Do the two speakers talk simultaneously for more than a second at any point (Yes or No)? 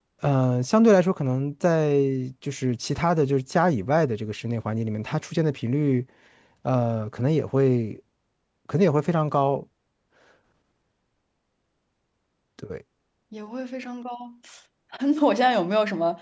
No